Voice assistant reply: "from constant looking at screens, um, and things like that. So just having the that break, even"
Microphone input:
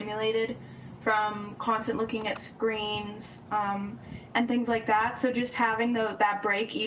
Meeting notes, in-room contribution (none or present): none